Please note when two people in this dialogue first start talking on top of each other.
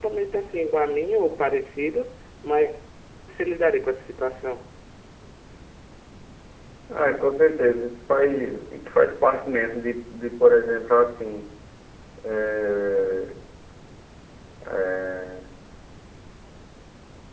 none

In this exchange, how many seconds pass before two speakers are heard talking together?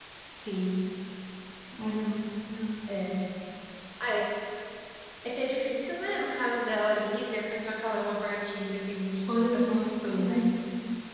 9 s

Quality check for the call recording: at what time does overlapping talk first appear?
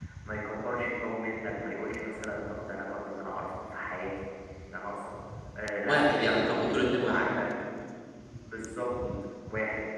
6 s

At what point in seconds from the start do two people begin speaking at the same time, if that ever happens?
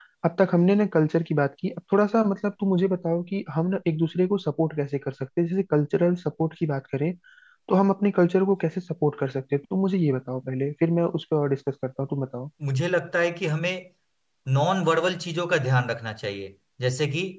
none

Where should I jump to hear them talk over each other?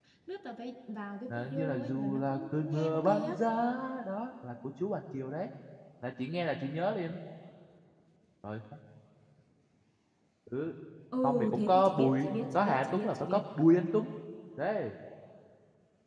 1 s

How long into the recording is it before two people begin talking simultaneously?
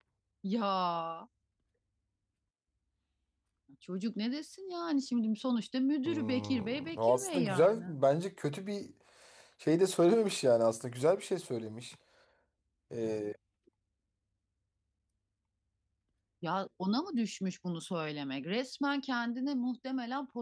6 s

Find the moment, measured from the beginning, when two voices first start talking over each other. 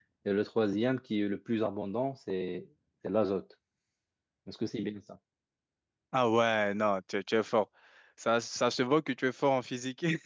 none

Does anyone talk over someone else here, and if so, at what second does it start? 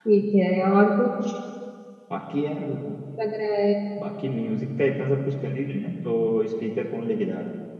none

